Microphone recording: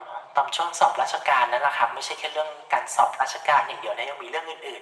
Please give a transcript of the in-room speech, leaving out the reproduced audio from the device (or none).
none